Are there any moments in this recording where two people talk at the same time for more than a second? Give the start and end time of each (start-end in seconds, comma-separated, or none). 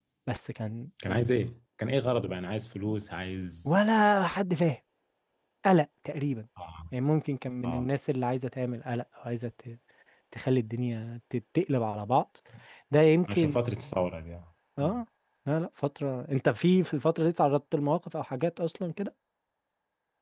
none